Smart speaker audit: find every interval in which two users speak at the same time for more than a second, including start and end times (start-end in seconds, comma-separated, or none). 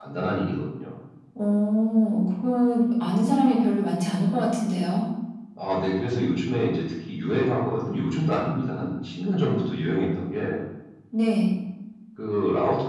none